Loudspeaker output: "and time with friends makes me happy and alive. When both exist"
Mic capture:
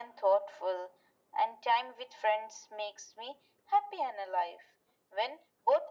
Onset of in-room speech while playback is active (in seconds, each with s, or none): none